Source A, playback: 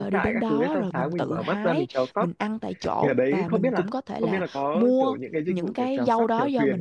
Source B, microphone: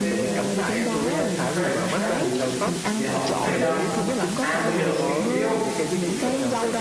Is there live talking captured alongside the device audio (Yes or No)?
Yes